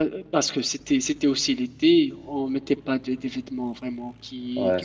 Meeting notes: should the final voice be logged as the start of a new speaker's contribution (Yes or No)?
No